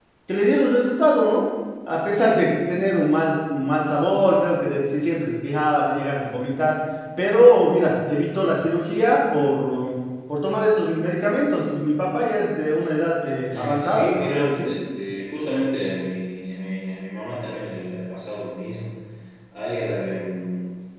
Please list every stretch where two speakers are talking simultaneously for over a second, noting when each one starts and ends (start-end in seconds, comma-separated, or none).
13.5-14.7